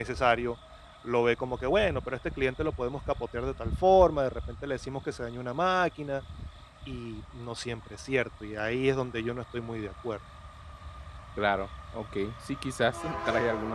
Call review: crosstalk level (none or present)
none